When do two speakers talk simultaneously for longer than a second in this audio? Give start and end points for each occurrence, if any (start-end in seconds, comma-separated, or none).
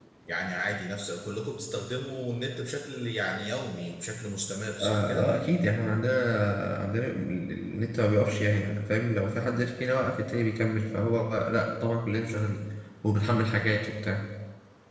none